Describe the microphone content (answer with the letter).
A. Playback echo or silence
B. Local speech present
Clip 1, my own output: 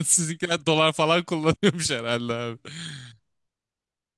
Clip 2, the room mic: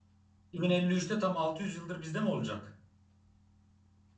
B